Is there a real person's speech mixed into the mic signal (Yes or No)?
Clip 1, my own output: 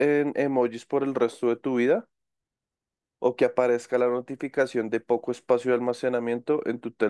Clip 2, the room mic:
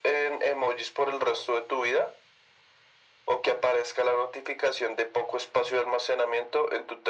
No